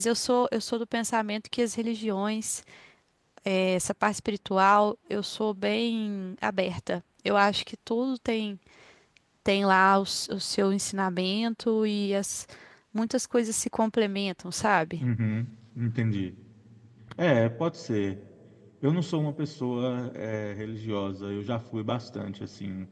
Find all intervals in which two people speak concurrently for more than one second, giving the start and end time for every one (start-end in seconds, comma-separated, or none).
none